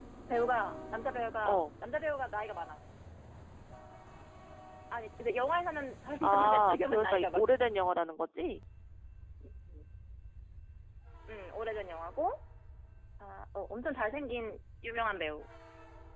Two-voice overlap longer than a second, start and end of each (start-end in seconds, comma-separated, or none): 6.2-7.6